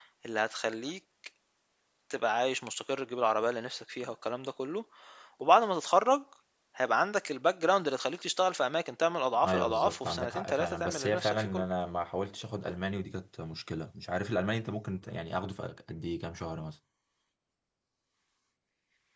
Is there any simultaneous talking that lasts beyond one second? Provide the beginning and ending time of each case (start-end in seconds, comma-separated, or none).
9.4-11.6